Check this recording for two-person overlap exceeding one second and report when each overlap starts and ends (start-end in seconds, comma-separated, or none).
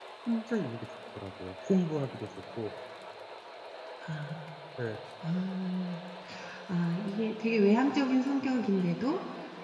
none